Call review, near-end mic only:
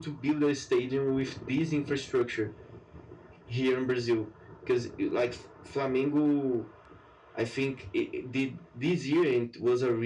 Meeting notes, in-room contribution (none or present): none